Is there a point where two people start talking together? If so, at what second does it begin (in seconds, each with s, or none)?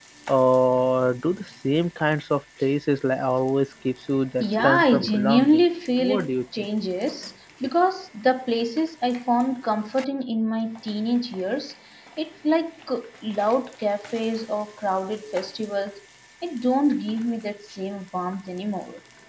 4.4 s